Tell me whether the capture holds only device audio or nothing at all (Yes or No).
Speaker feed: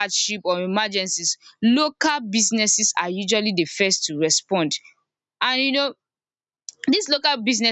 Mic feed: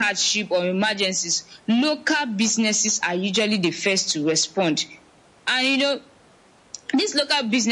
Yes